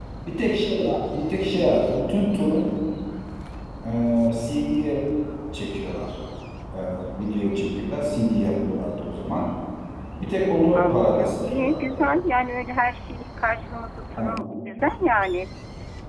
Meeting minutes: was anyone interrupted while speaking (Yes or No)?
Yes